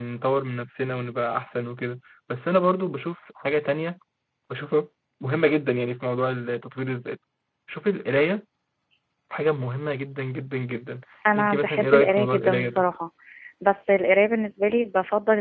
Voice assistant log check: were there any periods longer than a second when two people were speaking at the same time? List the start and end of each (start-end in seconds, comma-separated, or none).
11.4-12.8